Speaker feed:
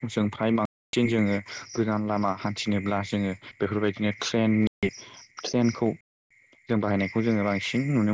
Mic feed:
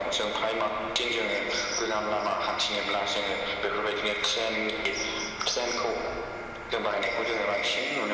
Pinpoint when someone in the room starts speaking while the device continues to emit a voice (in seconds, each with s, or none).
none